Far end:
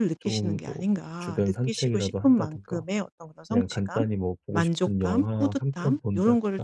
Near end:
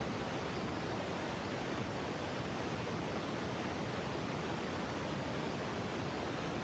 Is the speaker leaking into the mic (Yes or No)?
No